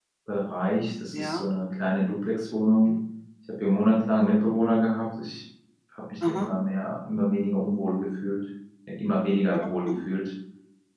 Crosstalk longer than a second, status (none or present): none